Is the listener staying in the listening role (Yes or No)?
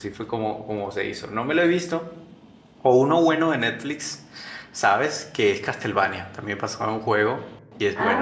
No